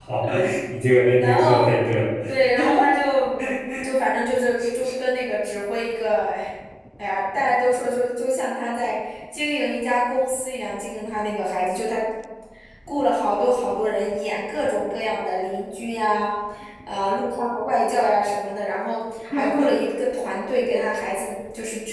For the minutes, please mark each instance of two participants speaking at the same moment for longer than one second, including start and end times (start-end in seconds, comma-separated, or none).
none